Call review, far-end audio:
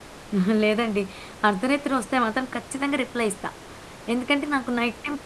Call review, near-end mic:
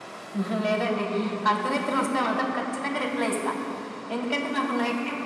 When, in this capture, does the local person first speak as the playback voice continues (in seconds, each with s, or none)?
none